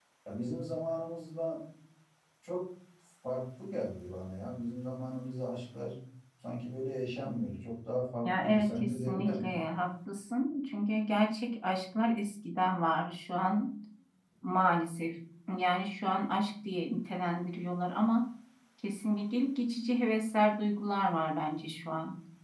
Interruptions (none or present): present